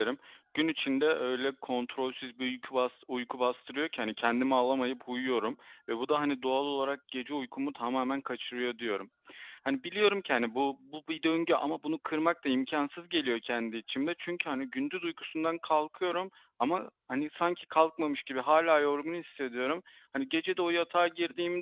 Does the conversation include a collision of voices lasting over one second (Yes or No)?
No